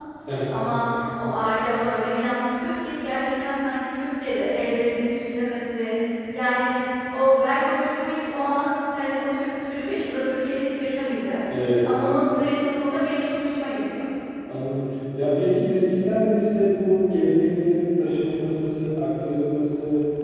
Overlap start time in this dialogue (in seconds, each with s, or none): none